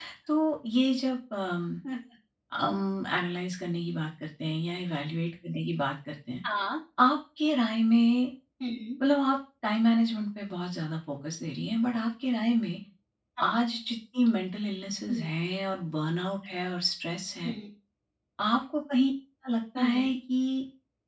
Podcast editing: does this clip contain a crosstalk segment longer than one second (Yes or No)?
No